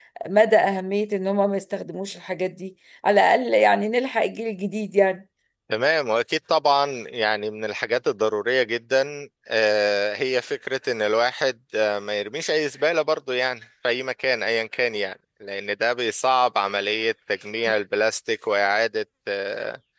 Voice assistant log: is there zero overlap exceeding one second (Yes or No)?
Yes